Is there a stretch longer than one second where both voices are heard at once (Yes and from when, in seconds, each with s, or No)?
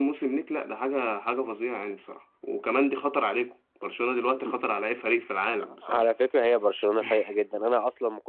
No